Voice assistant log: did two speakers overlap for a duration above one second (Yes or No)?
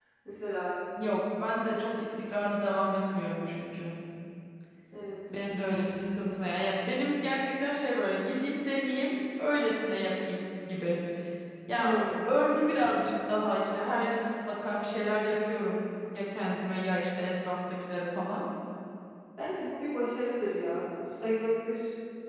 No